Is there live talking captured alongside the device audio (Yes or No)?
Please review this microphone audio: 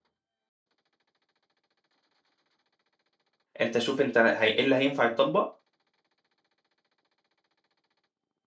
Yes